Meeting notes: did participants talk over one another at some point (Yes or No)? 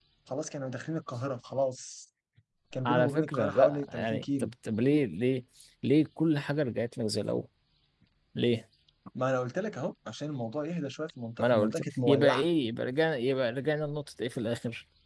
Yes